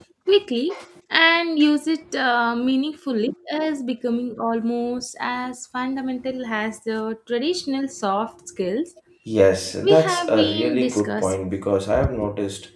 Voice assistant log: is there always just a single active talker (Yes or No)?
No